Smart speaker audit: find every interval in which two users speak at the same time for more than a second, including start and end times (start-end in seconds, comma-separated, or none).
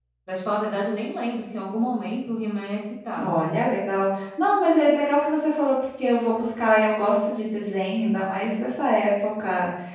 none